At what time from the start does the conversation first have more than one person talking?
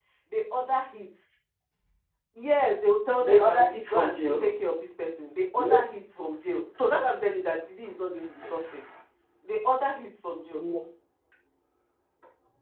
3.2 s

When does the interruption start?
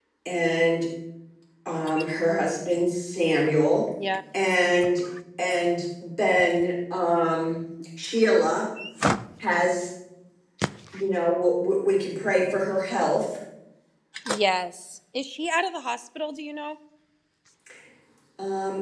none

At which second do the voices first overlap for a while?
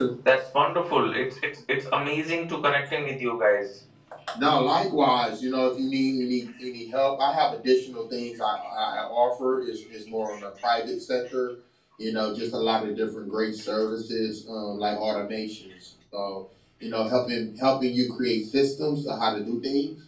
none

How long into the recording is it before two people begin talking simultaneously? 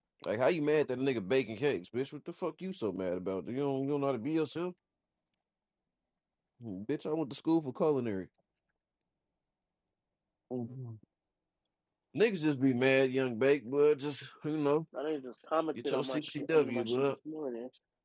15.8 s

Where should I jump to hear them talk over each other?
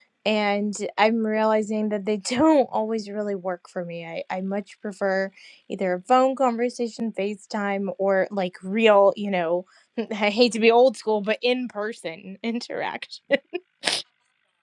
none

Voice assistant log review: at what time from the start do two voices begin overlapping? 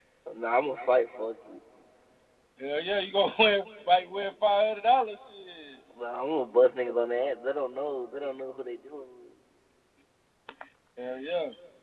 none

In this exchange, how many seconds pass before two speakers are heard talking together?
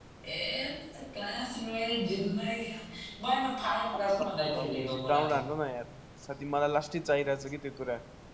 4.2 s

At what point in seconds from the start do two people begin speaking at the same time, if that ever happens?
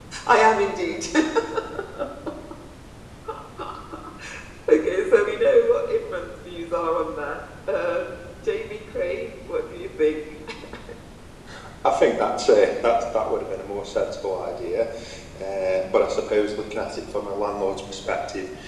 none

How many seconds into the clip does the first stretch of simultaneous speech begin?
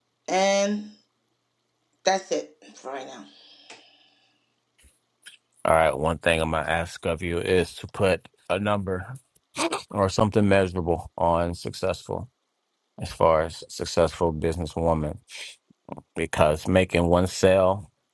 none

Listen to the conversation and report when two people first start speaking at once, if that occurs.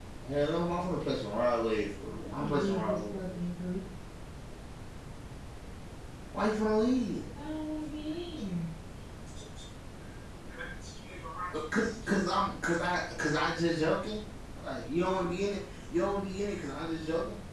2.2 s

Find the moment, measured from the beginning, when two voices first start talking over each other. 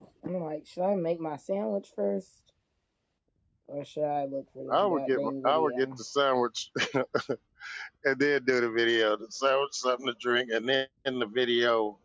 4.7 s

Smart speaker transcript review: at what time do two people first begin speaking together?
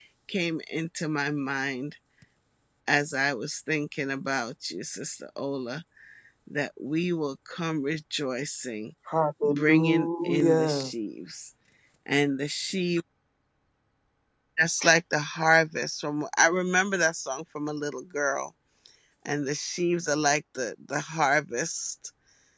9.4 s

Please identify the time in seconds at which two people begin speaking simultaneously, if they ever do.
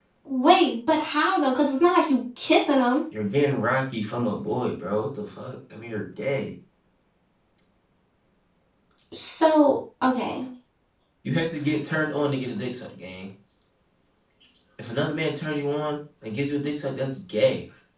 none

